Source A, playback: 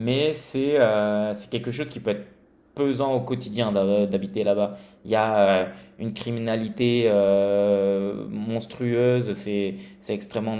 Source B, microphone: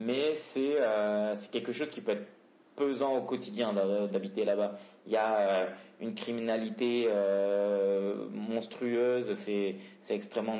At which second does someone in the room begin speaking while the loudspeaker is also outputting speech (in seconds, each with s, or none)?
none